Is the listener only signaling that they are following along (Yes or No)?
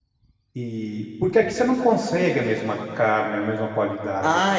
No